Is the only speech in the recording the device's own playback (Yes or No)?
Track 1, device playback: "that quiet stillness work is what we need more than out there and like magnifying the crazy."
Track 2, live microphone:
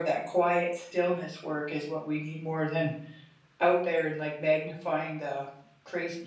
Yes